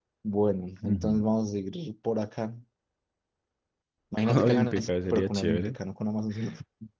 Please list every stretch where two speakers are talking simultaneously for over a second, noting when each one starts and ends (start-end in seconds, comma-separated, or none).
4.3-5.8